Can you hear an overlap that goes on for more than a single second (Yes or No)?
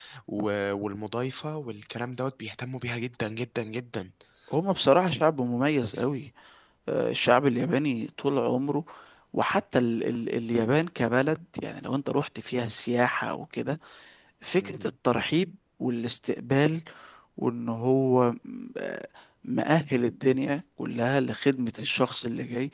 No